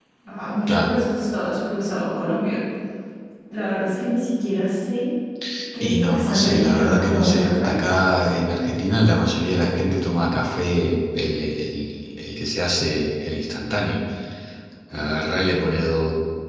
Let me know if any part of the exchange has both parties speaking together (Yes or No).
Yes